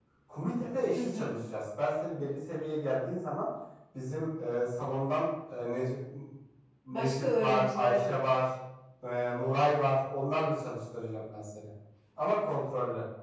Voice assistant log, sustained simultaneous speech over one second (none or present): present